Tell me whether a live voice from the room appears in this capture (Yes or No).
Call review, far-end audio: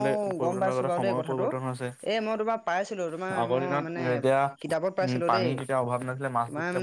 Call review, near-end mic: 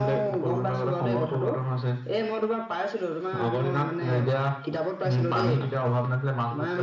No